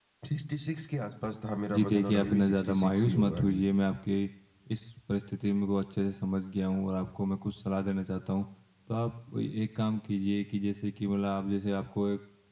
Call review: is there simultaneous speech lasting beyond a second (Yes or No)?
Yes